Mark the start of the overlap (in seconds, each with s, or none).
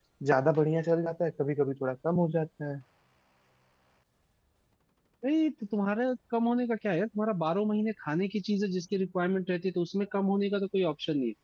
none